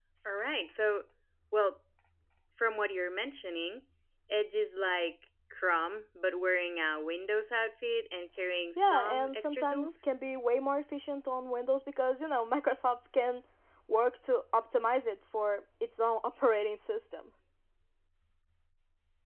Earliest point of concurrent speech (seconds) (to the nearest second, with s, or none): 9 s